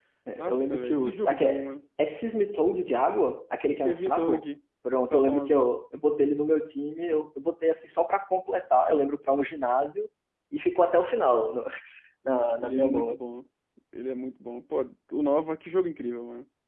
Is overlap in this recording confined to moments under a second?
No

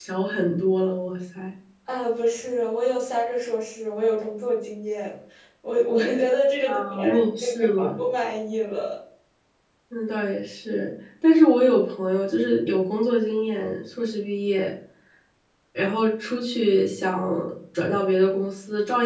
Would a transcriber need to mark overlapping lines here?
Yes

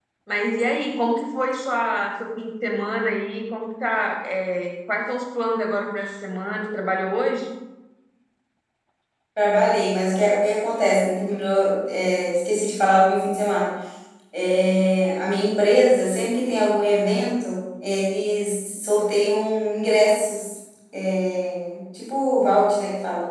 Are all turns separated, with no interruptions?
Yes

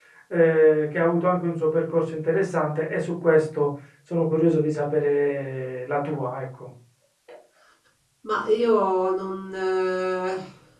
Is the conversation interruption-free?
Yes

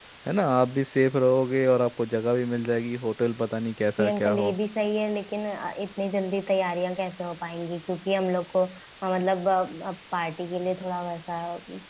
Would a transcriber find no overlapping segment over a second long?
Yes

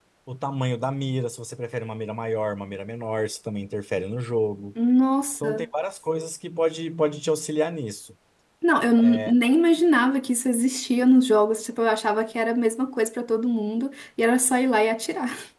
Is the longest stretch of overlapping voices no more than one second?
Yes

